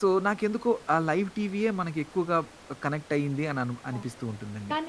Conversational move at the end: taking over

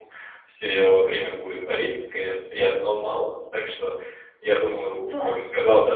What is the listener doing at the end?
listening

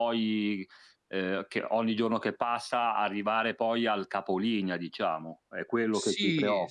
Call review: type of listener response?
taking over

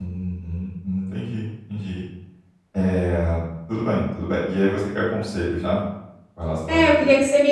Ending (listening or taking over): taking over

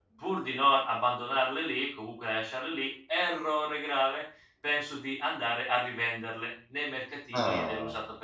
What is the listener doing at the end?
listening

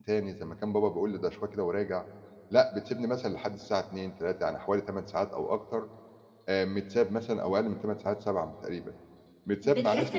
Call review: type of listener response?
taking over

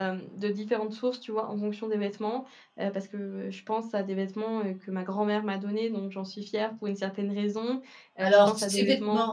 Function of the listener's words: taking over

